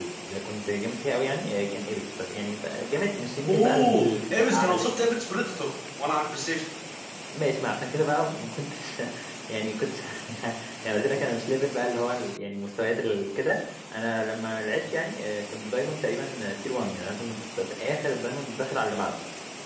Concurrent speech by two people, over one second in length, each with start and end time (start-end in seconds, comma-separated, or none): 3.5-4.9